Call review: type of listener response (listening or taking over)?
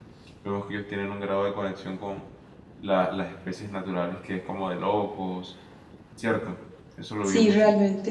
taking over